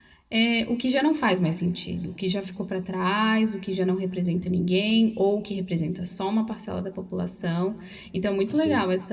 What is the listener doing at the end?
listening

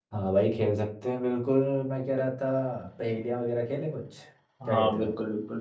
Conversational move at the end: taking over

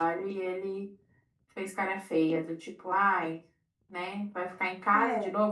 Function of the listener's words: listening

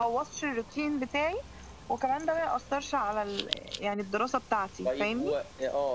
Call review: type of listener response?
taking over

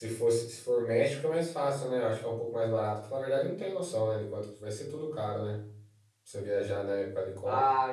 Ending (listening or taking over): taking over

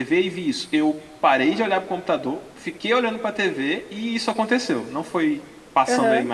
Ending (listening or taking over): taking over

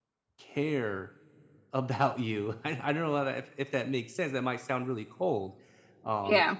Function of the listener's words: listening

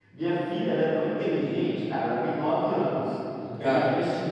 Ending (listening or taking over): listening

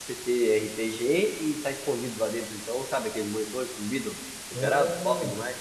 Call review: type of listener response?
taking over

